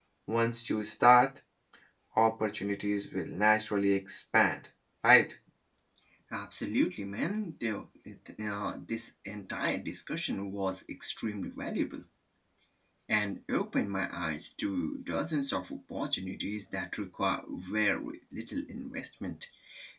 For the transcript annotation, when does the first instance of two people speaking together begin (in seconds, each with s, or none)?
none